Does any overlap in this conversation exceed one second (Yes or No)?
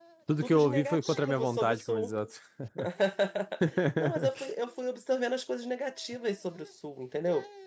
Yes